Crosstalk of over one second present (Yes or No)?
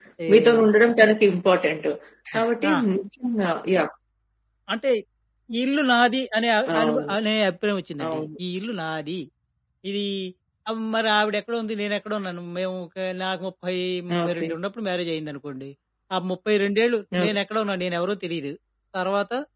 No